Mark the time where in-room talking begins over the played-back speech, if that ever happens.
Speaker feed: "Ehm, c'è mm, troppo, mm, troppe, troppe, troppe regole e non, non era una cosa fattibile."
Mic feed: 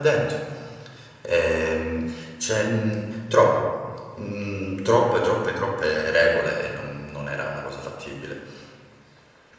none

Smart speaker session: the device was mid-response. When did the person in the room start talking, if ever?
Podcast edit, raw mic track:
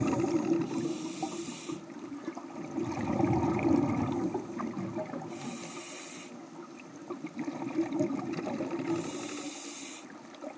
none

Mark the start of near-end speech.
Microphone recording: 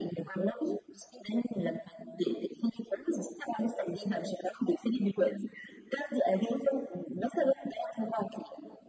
none

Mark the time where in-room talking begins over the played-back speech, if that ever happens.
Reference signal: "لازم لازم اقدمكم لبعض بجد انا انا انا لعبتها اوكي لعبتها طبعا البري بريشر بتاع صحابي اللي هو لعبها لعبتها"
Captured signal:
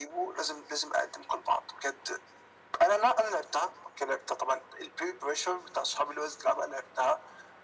none

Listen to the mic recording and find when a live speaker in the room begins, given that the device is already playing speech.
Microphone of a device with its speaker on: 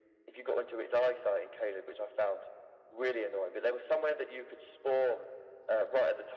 none

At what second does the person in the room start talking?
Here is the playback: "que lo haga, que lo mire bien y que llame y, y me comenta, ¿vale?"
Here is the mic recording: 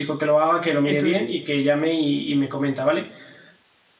0.8 s

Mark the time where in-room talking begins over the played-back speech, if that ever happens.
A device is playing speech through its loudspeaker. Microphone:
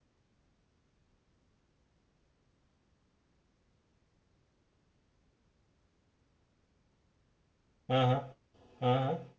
7.9 s

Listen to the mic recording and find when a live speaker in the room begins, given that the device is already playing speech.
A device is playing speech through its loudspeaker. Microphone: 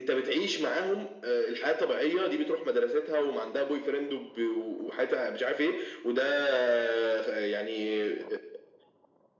none

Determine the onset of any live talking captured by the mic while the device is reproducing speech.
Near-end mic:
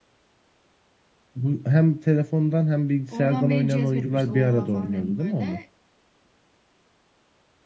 3.1 s

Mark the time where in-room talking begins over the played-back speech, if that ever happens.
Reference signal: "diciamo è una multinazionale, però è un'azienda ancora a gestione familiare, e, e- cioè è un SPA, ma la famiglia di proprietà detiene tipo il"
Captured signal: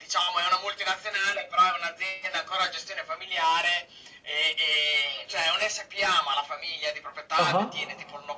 7.4 s

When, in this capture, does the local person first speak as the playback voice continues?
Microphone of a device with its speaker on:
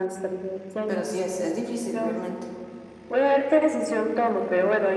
0.8 s

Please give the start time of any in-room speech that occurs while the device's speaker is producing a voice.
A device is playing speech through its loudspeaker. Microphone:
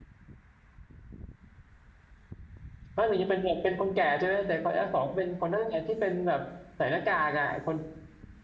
2.9 s

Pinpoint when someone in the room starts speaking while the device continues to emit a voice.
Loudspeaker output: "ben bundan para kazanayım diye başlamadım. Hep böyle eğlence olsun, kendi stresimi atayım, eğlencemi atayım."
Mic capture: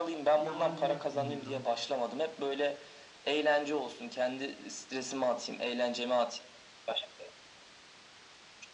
0.3 s

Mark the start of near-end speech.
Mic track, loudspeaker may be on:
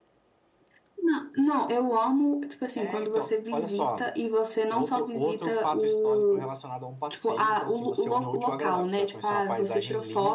none

